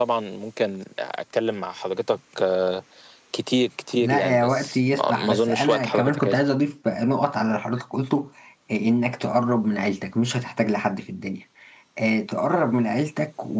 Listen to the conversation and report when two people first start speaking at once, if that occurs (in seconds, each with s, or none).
4.0 s